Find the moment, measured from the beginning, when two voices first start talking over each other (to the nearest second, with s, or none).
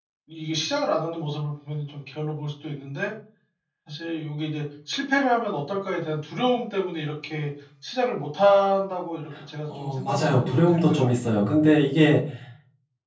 10 s